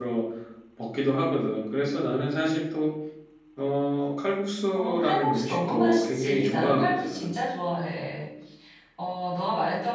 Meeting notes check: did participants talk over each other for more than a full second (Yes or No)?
Yes